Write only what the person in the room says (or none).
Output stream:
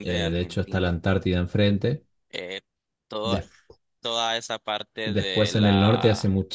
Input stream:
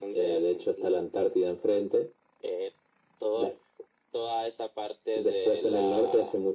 none